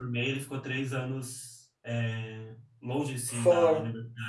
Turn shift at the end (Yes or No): No